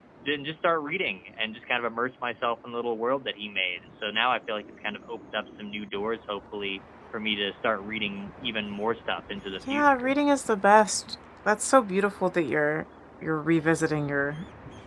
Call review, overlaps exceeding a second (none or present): none